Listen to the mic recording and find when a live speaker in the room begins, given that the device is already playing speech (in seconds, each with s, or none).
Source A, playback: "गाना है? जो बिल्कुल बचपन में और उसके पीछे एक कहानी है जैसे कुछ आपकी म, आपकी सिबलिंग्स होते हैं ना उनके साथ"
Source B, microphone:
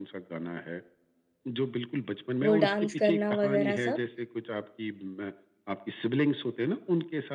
2.4 s